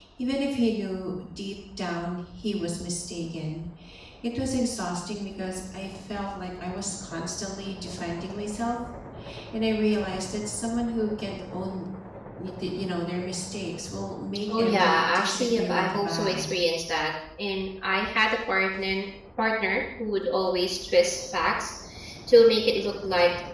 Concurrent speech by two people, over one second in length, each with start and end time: 14.5-16.5

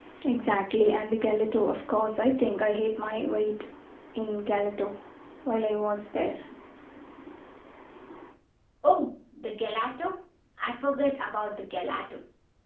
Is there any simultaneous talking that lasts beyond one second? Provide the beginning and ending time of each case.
none

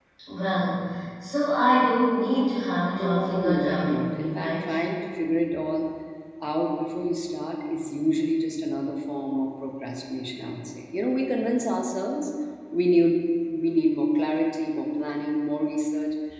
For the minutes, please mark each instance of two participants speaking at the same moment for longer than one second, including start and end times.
3.0-4.7

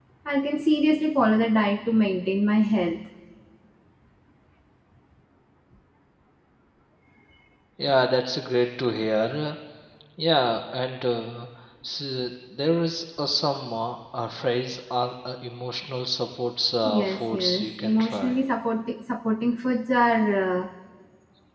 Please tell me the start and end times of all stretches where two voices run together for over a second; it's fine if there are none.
16.8-18.4

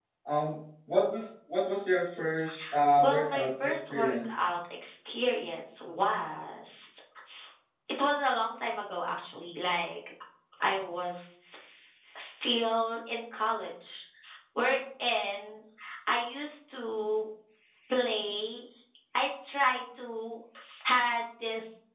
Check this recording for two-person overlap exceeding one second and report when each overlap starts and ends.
3.0-4.5

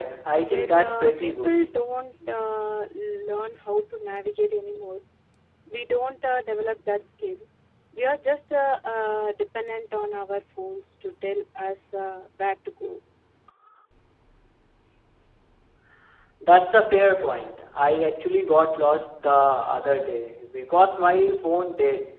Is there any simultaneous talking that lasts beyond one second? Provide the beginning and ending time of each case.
0.5-1.7

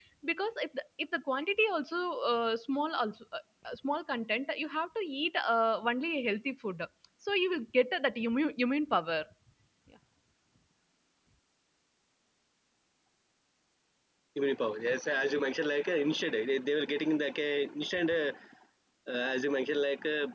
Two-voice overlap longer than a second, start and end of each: none

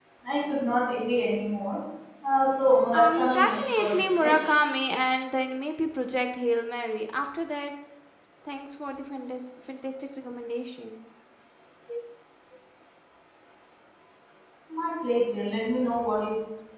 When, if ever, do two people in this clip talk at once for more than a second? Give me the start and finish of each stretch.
2.9-4.4

